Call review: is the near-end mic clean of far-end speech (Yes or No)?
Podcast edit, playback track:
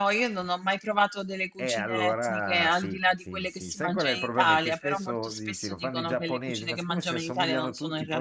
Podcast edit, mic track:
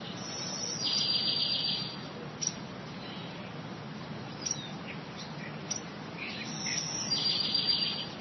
Yes